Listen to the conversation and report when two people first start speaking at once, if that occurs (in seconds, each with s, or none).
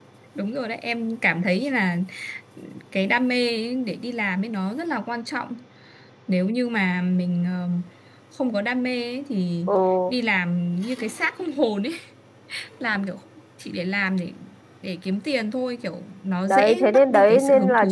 16.5 s